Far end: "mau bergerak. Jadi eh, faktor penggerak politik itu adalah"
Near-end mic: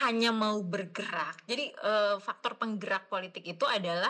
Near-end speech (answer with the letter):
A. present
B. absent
B